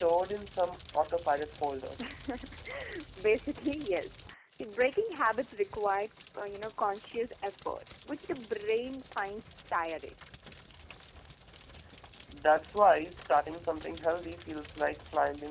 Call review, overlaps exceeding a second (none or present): none